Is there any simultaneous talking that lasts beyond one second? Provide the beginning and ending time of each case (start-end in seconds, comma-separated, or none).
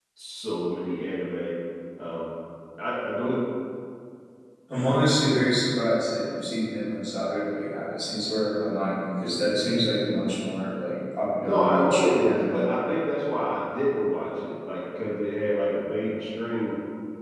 11.4-12.6